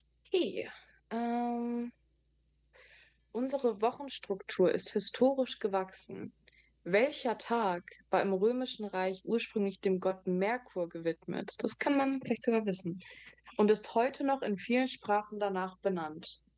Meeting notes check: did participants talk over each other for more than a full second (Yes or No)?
No